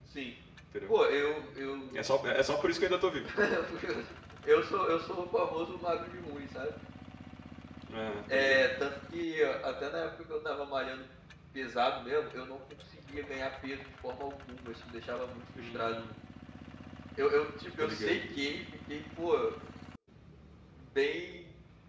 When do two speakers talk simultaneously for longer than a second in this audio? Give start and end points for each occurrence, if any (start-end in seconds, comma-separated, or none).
none